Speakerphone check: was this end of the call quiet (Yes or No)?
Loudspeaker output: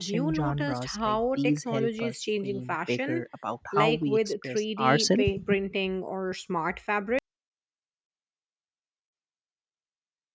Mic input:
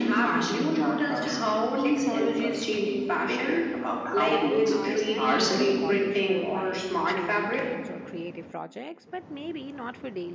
No